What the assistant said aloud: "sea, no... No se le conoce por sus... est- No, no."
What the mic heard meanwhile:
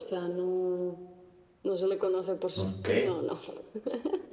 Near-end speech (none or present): present